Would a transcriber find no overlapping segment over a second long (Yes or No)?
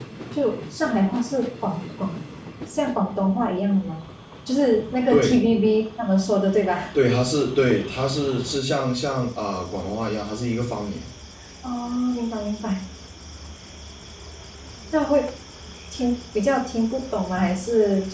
Yes